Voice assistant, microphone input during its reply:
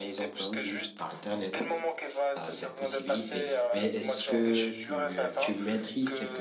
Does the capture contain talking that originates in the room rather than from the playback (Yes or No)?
Yes